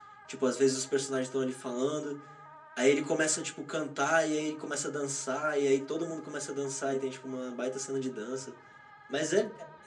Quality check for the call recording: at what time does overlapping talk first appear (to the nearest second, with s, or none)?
none